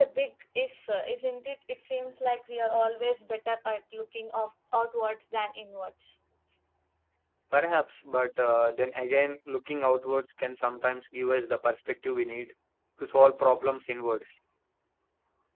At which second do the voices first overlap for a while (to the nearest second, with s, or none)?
none